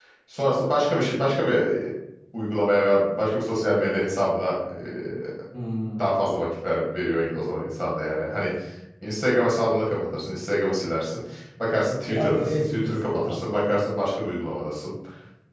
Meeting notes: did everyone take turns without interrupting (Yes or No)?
No